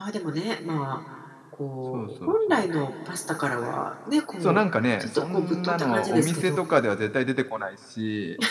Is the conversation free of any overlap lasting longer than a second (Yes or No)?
No